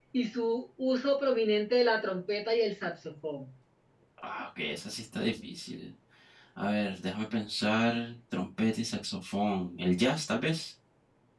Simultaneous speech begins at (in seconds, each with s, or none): none